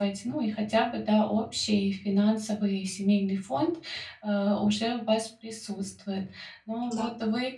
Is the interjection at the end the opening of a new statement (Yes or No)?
No